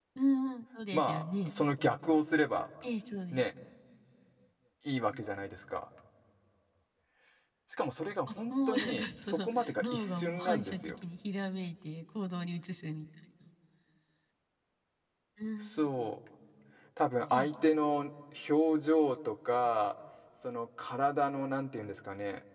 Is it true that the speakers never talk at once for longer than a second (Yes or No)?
No